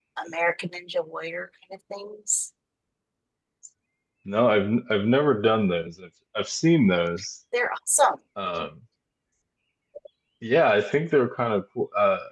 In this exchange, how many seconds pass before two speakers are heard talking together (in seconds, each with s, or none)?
none